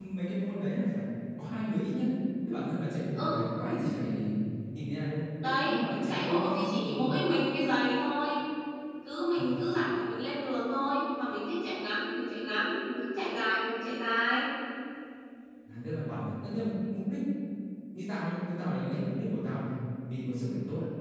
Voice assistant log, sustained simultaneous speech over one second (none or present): present